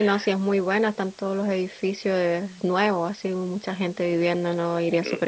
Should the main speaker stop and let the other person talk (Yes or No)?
Yes